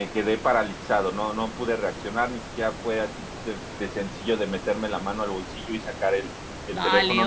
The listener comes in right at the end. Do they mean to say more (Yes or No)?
Yes